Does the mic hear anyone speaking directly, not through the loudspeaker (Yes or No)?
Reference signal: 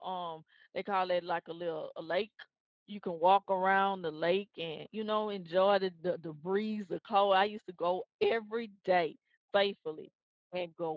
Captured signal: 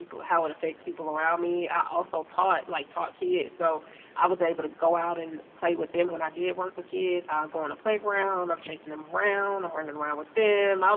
Yes